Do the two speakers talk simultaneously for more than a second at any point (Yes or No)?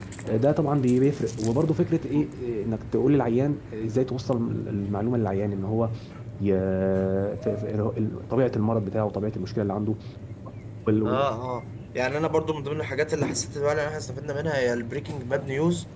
No